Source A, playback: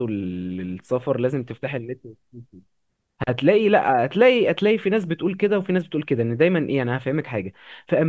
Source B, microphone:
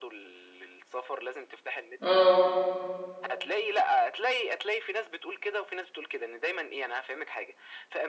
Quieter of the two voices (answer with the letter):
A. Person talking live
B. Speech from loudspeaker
B